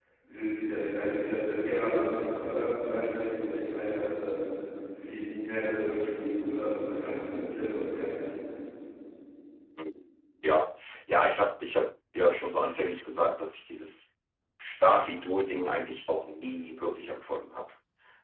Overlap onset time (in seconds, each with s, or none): none